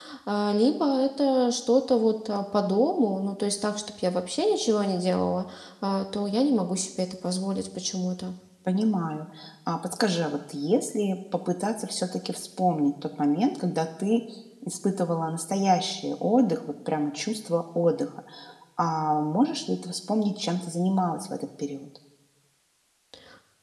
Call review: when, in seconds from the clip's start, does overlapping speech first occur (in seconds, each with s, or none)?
none